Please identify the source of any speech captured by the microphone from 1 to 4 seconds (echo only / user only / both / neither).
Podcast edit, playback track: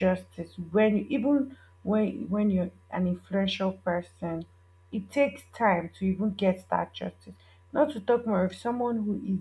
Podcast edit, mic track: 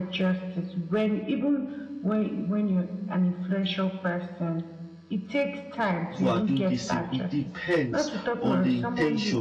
echo only